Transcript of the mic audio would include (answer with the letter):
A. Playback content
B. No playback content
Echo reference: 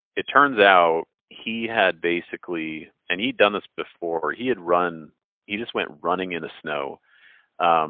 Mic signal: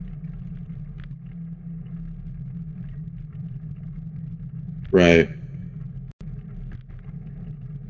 B